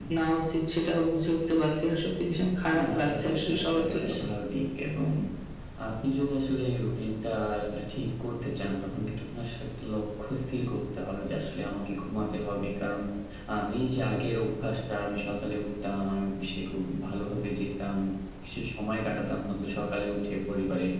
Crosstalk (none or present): present